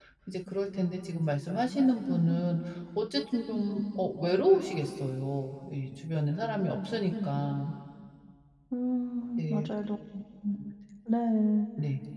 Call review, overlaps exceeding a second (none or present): none